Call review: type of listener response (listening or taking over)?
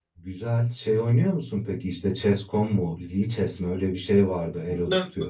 taking over